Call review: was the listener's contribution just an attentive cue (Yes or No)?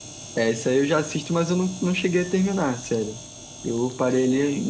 No